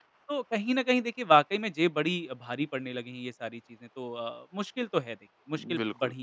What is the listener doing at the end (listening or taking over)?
taking over